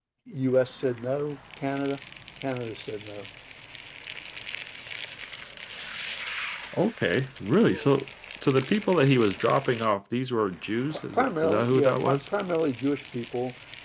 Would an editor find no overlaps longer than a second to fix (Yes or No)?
No